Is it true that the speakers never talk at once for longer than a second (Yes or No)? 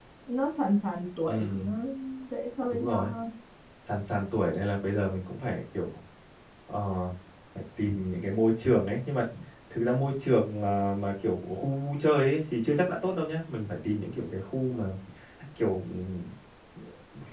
Yes